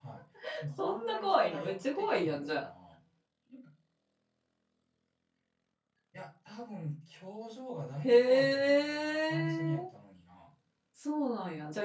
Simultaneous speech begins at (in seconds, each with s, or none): 0.8 s